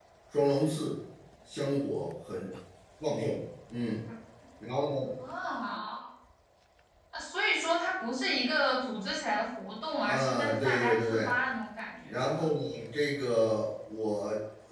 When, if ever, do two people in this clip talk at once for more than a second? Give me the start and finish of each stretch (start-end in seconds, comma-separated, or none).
10.0-11.3